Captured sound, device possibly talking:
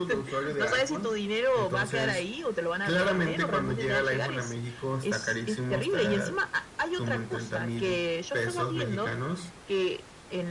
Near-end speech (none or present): none